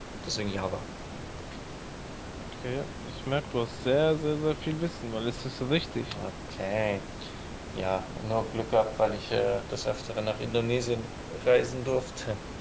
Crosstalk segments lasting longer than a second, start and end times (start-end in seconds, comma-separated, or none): none